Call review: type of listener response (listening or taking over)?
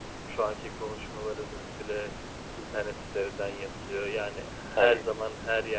listening